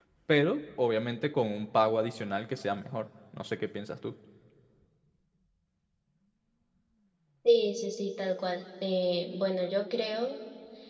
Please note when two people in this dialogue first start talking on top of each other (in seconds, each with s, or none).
none